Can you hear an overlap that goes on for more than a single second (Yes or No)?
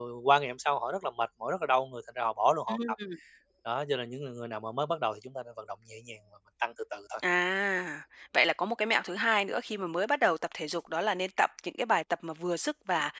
No